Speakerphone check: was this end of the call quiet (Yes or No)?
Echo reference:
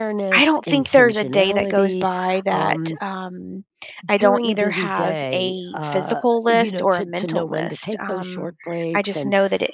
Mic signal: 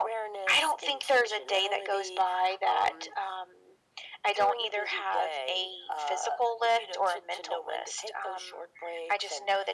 Yes